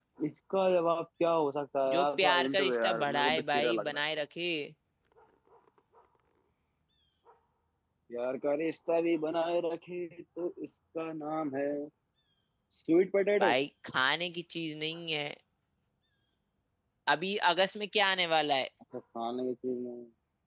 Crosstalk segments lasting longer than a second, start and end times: 1.9-4.0

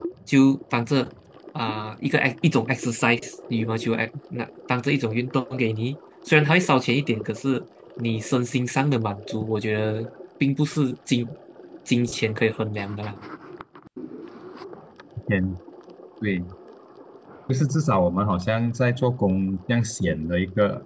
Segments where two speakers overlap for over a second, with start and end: none

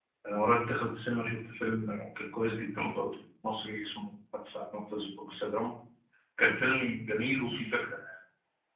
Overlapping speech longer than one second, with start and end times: none

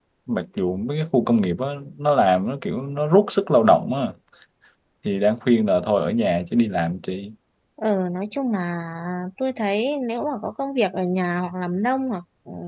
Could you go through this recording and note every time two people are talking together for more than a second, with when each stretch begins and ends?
none

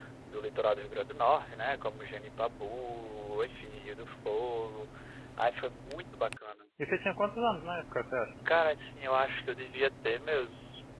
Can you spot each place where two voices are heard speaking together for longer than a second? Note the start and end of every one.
none

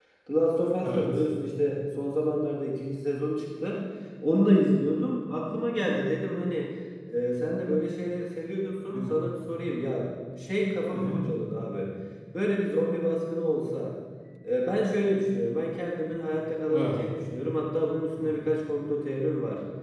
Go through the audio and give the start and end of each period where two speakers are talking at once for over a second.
none

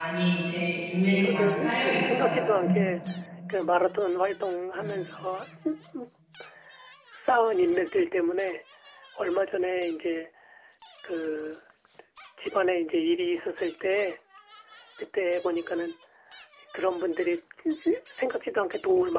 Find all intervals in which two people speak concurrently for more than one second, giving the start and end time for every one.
1.2-2.8

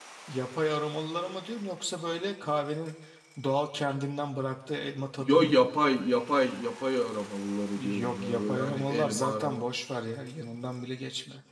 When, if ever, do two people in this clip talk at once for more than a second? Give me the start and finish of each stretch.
7.7-9.7

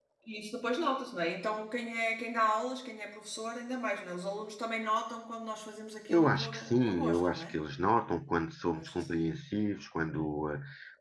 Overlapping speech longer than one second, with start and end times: 6.1-7.6

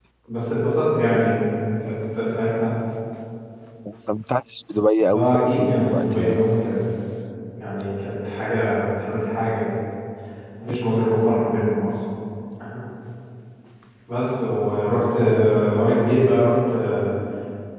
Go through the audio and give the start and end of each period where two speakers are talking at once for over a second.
5.1-6.4

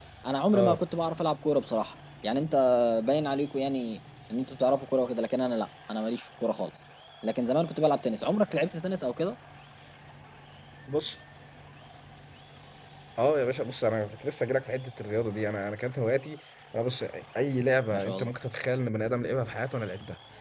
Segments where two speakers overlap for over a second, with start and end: none

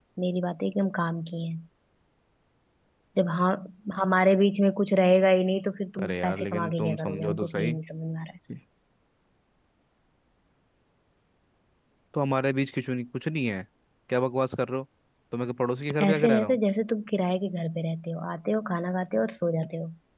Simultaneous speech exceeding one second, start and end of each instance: 6.0-7.7

